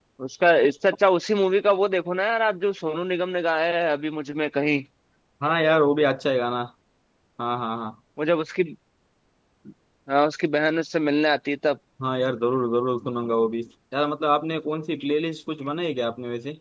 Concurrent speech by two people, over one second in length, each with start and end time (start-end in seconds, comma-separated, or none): none